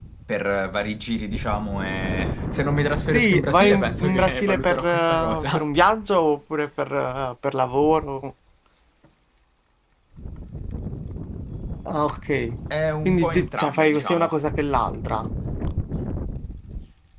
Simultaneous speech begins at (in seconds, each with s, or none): 3.1 s